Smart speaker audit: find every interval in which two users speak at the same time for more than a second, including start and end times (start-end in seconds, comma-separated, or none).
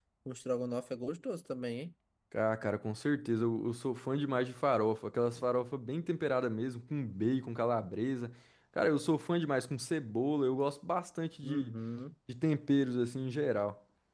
none